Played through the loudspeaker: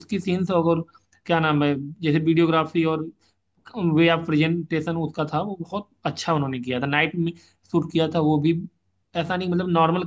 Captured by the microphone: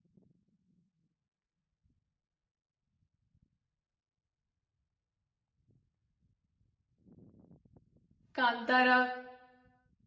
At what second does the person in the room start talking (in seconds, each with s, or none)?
8.3 s